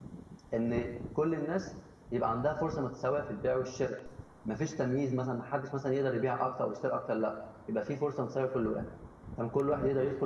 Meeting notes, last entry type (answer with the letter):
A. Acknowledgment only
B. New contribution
B